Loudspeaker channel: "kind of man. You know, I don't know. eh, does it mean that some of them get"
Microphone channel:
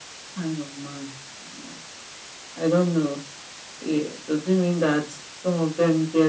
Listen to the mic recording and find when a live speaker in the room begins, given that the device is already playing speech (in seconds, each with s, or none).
none